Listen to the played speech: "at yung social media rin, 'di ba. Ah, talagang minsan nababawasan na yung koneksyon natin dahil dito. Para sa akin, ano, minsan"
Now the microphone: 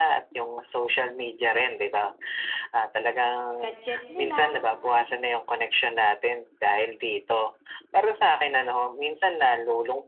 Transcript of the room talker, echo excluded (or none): gadget nila